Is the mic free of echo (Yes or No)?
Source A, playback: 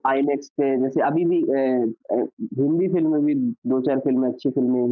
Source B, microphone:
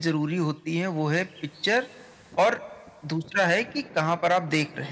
Yes